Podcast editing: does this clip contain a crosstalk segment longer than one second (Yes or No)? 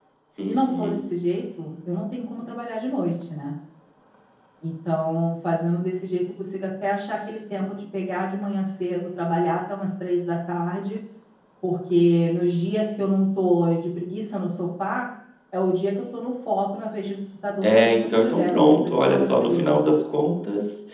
Yes